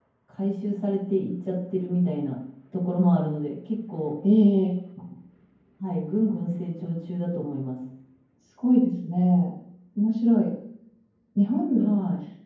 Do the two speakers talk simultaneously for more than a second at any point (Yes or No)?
No